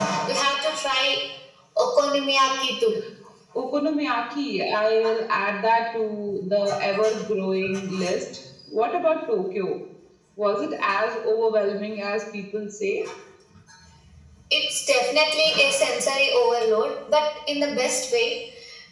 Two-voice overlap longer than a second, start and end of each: none

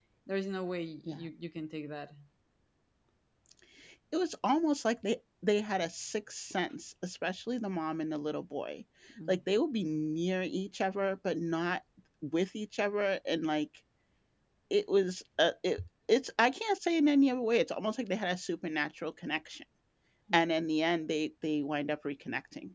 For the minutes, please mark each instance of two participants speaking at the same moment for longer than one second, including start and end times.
none

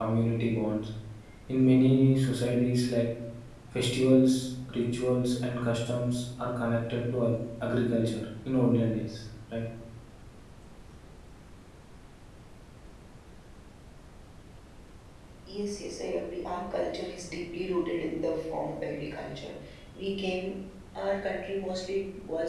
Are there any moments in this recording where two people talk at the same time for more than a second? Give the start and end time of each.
none

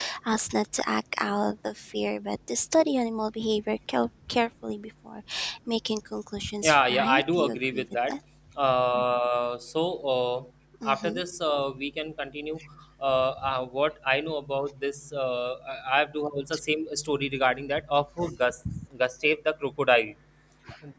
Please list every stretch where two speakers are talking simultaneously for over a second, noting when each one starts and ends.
6.6-8.1

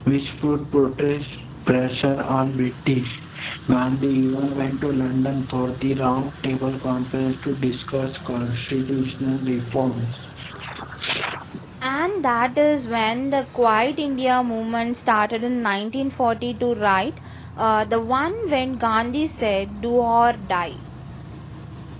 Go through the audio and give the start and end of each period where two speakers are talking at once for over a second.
none

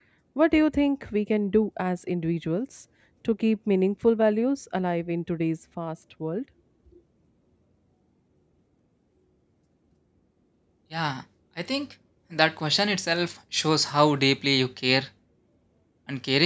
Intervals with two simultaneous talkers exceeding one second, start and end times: none

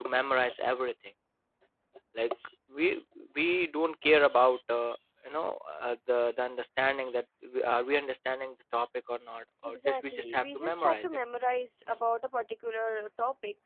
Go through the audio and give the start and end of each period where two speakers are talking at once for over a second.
9.6-11.0

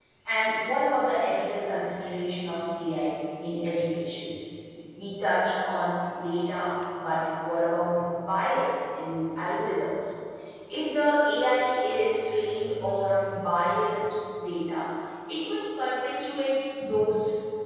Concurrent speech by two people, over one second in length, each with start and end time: none

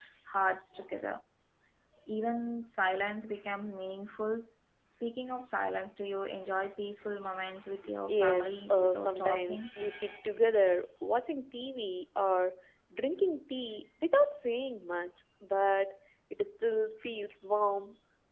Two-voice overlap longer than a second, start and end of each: 8.1-9.7

